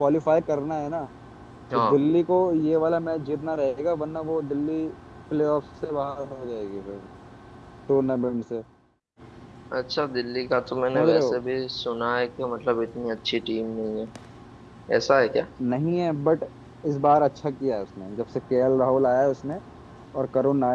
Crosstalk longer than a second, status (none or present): none